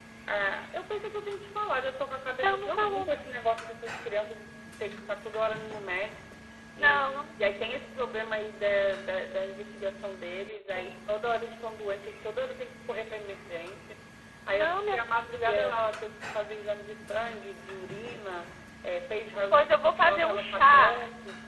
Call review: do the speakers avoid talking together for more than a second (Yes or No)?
No